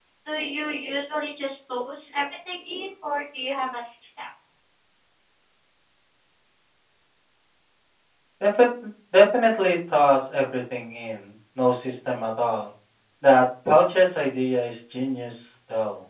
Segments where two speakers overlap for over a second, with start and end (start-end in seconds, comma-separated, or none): none